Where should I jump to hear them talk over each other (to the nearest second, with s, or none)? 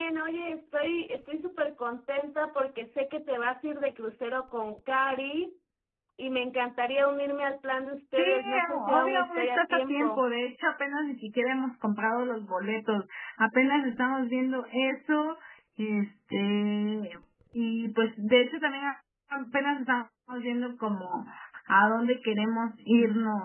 8 s